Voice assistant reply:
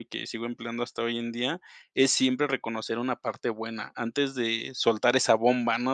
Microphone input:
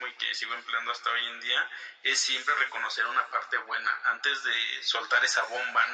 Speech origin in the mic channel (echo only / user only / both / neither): echo only